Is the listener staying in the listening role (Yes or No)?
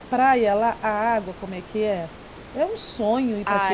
No